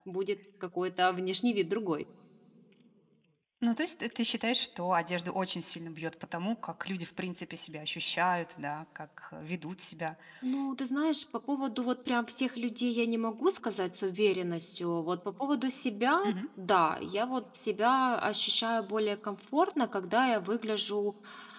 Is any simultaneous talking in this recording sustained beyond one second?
No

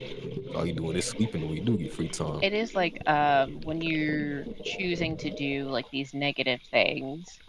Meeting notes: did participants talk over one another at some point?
No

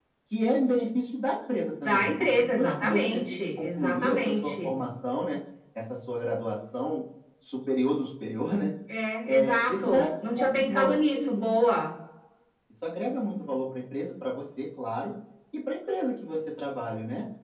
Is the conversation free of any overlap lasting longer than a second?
No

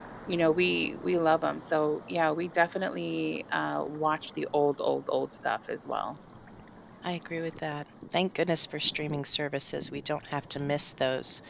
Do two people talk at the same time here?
No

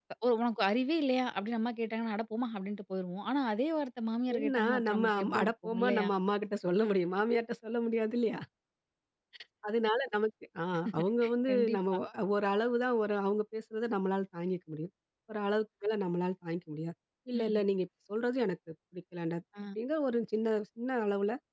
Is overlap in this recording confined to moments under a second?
No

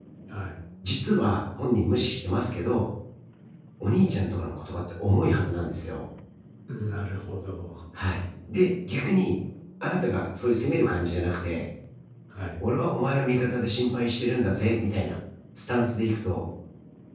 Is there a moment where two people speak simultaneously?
No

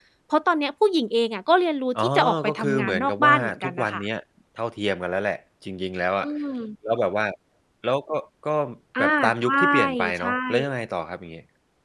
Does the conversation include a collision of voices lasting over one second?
Yes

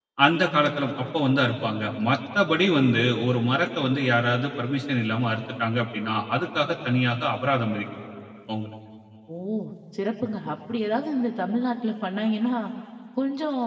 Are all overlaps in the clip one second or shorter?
Yes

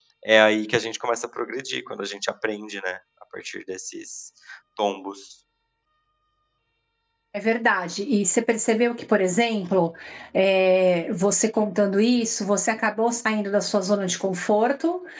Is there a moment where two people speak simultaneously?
No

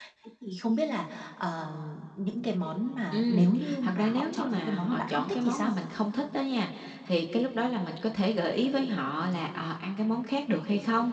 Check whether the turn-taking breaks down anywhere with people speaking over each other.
Yes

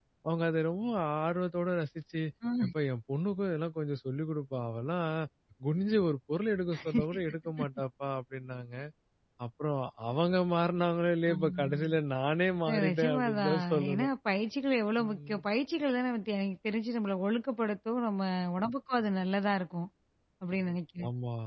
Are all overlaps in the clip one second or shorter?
No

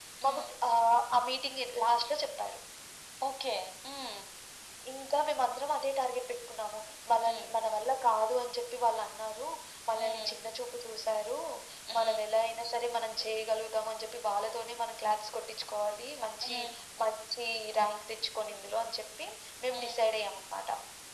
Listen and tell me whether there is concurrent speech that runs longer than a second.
No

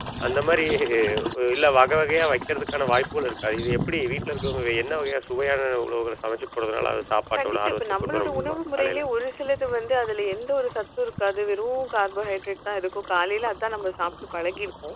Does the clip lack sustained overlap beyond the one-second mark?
No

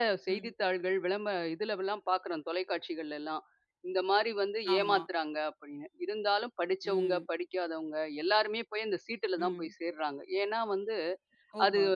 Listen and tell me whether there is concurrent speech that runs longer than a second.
No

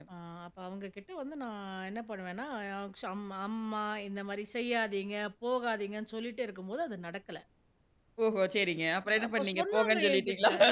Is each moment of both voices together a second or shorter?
No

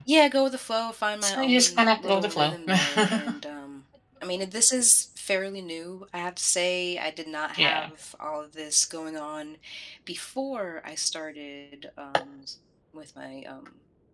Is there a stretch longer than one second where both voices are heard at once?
Yes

